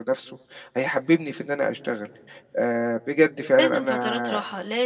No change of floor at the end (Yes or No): No